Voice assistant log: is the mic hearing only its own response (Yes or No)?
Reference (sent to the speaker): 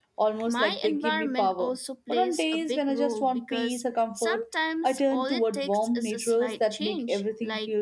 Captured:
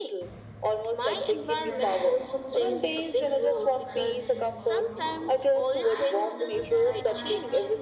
No